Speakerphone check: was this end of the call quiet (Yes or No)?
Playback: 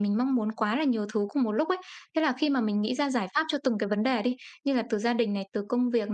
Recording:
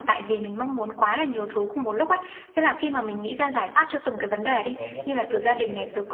No